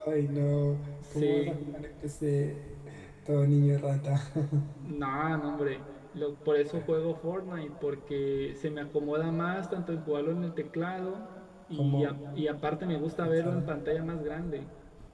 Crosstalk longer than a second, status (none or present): none